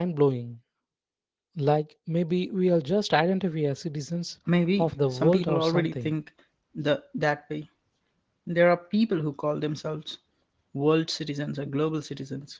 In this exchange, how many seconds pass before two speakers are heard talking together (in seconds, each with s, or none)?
4.8 s